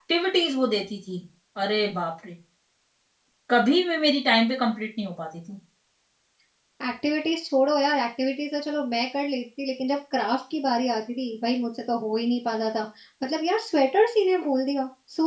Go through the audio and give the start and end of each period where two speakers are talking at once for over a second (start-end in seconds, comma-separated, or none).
none